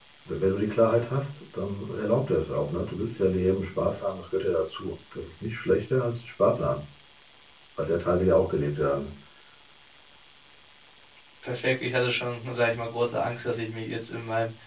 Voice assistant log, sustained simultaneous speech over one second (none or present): none